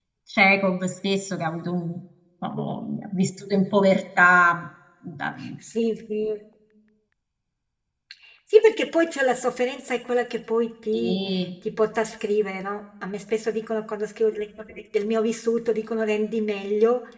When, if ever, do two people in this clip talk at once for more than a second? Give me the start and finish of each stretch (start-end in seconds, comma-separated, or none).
none